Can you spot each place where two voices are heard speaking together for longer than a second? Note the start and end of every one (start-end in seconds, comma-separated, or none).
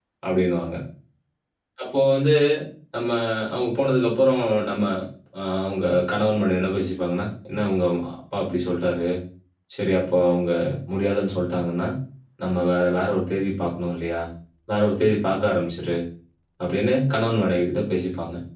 none